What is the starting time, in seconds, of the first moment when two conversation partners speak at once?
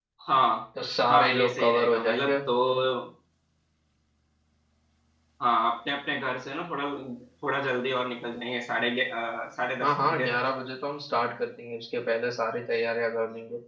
1.1 s

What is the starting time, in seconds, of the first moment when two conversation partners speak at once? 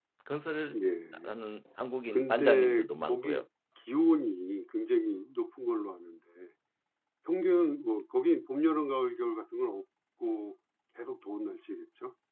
2.1 s

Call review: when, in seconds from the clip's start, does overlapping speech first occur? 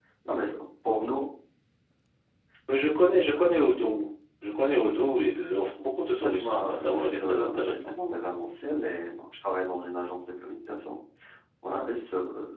6.2 s

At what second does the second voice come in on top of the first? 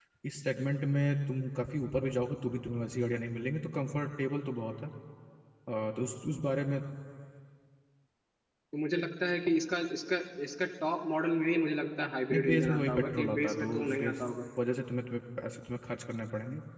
12.3 s

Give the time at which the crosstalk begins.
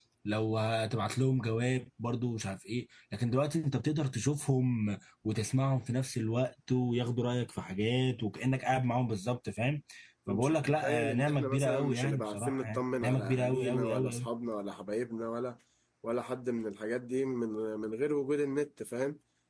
10.3 s

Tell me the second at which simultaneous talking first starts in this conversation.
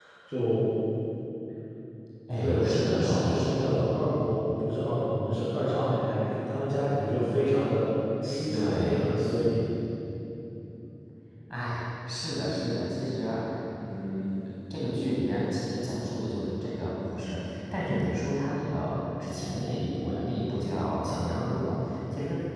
2.4 s

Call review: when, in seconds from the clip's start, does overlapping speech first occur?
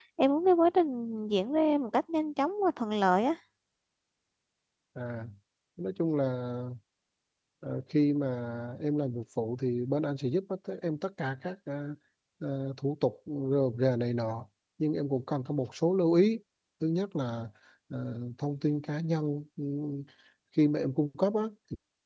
none

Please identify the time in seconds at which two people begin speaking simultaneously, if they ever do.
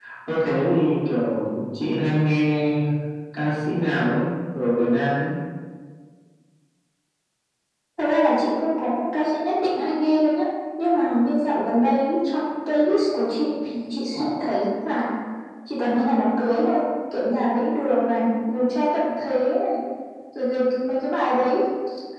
none

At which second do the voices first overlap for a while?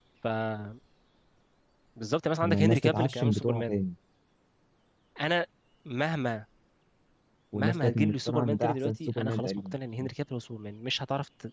2.4 s

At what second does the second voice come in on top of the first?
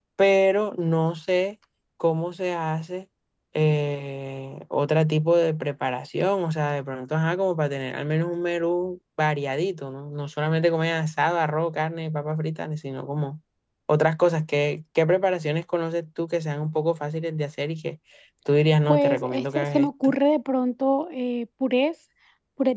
18.9 s

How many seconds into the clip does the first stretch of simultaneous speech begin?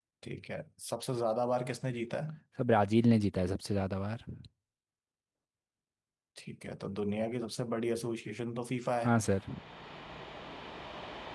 none

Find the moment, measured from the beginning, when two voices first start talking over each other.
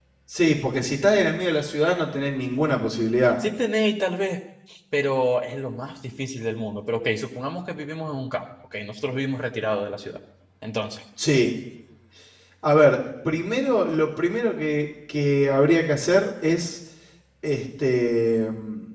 none

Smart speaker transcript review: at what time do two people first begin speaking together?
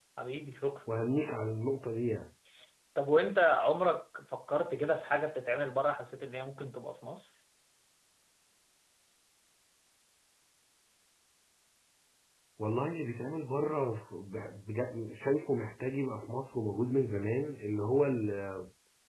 none

